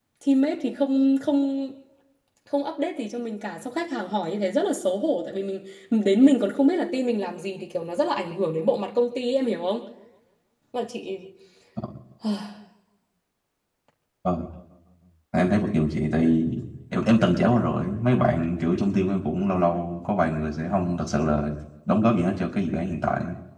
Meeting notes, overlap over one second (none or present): none